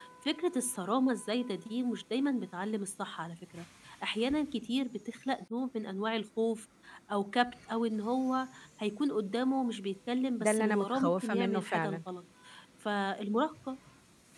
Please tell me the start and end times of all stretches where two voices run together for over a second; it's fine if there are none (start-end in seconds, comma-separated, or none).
10.4-12.0